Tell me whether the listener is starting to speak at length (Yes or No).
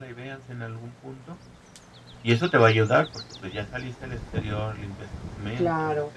Yes